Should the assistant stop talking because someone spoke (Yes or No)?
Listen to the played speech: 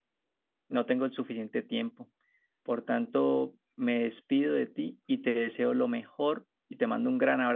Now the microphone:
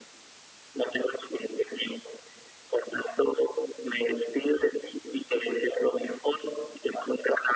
No